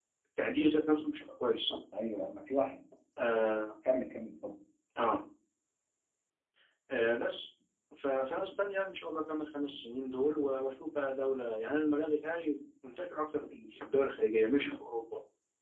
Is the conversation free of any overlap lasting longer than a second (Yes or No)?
Yes